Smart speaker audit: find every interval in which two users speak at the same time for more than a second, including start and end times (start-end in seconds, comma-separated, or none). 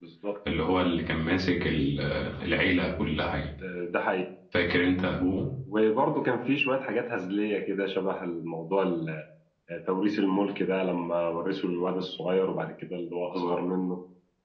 none